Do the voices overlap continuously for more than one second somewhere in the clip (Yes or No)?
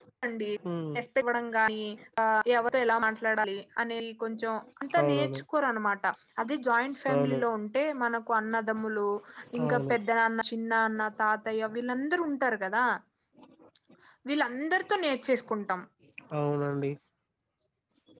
No